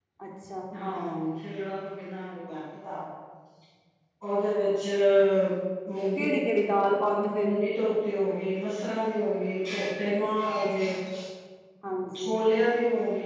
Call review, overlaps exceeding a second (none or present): none